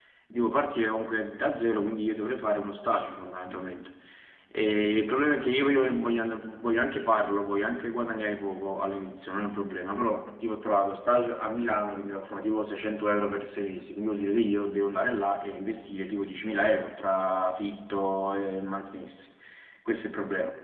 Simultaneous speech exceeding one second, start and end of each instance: none

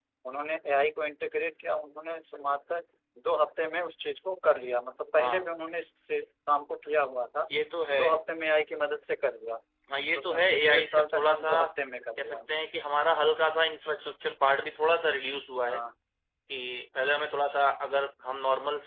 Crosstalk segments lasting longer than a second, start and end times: 10.2-11.6

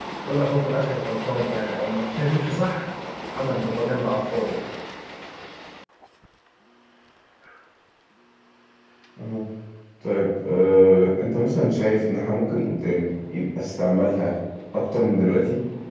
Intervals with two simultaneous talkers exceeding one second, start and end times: none

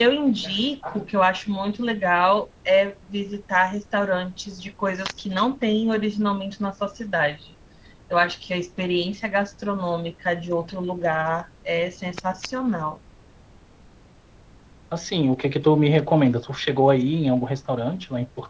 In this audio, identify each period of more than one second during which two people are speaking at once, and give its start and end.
none

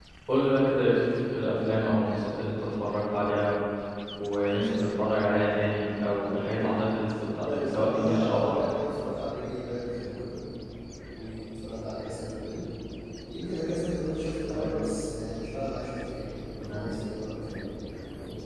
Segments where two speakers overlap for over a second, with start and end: 7.4-8.7

